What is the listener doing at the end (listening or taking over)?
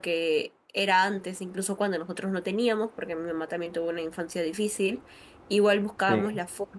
listening